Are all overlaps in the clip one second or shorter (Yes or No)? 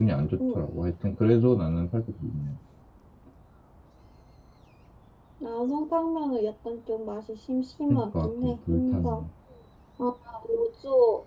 No